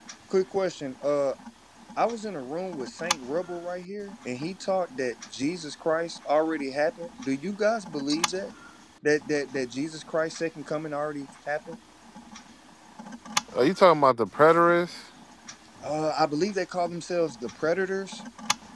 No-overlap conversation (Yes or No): Yes